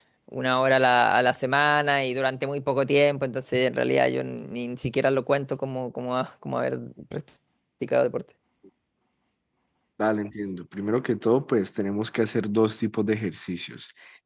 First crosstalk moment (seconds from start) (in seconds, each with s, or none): none